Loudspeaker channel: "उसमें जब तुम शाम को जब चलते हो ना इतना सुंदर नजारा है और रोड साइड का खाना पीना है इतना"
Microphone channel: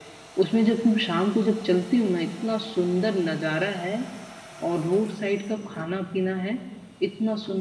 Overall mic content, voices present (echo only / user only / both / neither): echo only